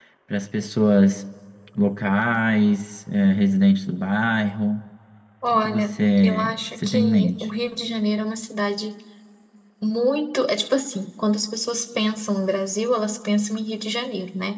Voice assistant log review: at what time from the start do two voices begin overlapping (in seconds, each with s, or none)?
5.5 s